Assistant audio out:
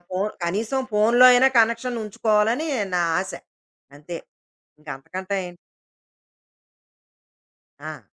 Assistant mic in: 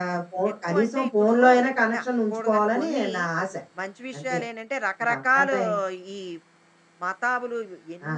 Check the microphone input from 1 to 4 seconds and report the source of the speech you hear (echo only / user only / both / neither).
both